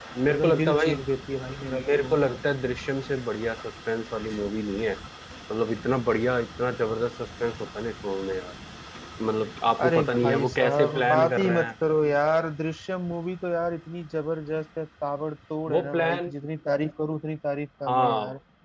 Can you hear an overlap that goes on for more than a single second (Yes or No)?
Yes